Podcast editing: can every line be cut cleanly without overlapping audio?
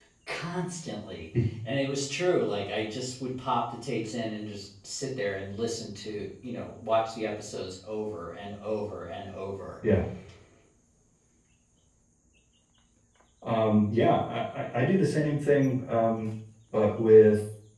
Yes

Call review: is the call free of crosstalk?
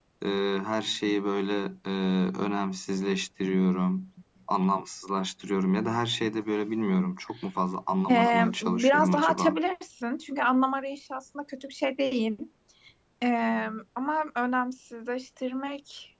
No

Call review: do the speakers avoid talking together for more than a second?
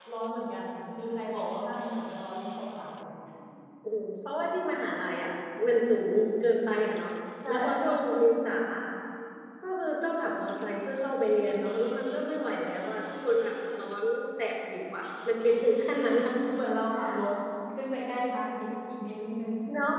Yes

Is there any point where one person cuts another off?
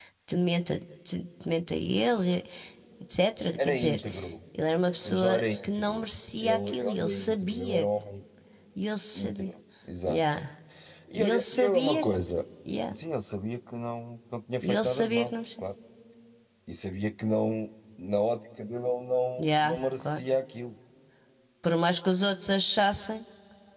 Yes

